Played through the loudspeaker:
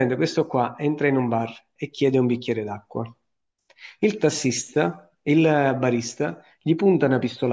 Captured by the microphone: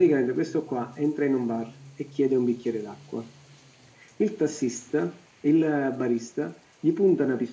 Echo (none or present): present